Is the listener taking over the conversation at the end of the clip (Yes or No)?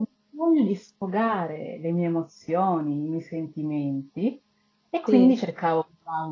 No